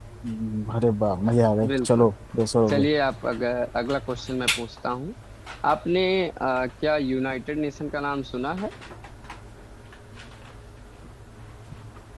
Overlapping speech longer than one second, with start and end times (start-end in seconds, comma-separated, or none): none